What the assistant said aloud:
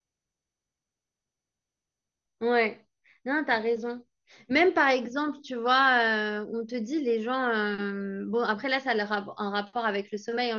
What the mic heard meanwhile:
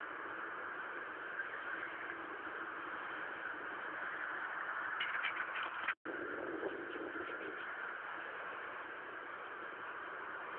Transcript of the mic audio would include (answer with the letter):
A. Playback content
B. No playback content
B